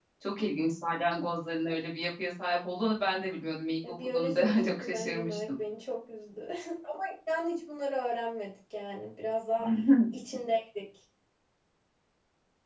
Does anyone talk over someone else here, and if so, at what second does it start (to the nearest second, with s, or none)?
4 s